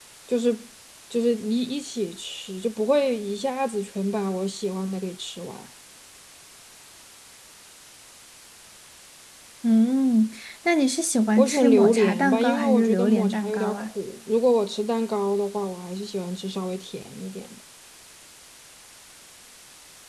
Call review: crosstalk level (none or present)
present